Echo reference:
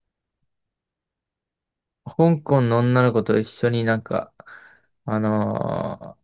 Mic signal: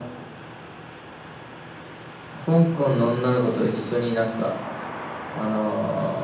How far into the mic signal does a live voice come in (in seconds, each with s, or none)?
none